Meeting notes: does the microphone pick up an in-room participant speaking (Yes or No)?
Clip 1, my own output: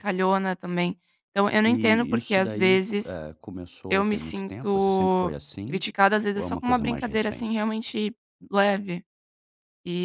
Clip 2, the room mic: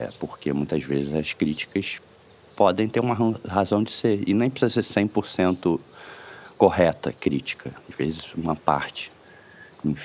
Yes